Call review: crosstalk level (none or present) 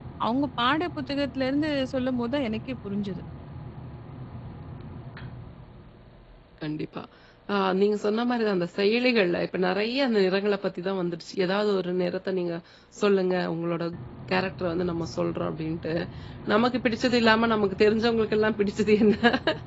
none